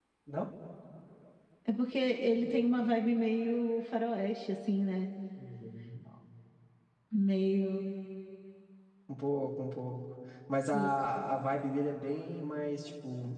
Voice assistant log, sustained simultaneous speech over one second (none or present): none